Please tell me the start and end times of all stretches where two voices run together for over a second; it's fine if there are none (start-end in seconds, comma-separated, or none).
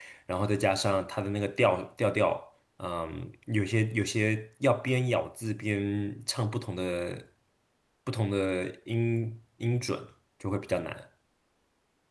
none